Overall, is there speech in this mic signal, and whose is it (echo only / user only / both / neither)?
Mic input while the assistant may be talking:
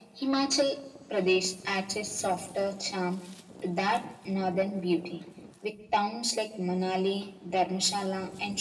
echo only